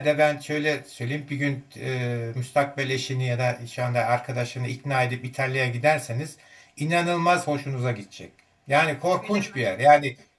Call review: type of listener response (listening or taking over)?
listening